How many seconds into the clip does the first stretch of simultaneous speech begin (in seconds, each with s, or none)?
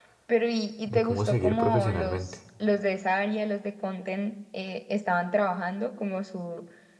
0.8 s